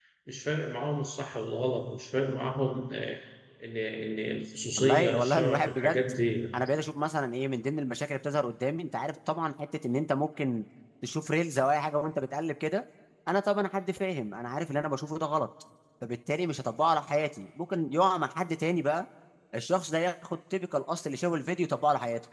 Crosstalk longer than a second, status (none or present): present